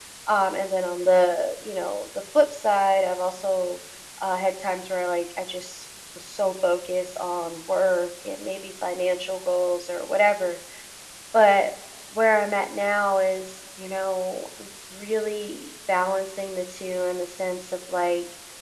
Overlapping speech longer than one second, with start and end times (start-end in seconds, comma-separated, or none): none